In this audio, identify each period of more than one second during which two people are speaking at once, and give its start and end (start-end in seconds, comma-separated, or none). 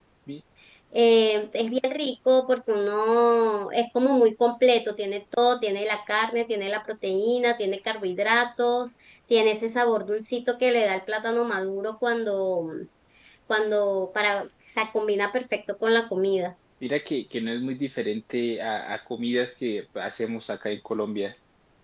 none